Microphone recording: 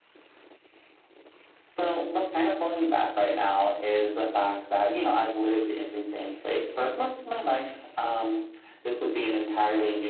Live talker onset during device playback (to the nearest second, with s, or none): none